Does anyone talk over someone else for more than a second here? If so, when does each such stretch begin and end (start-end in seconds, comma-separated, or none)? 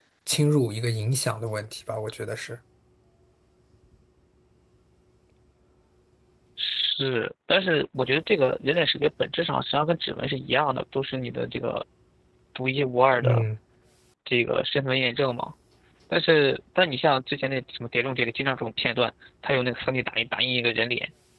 none